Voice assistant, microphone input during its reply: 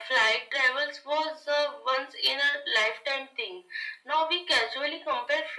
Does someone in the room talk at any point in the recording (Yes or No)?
No